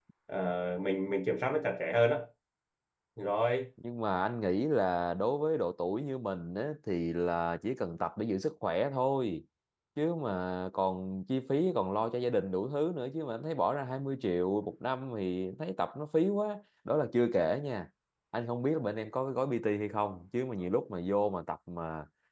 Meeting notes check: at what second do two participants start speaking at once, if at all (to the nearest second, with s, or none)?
none